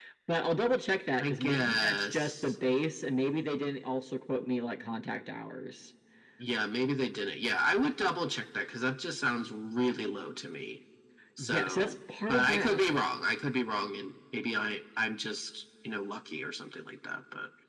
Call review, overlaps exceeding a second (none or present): present